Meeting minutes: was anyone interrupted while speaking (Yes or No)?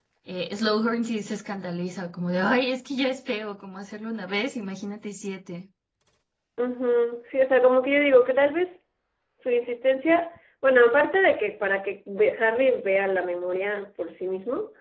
No